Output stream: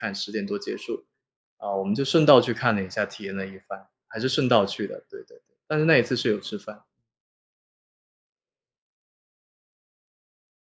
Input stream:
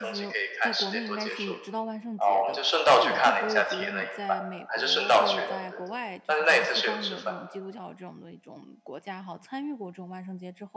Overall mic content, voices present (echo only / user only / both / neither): both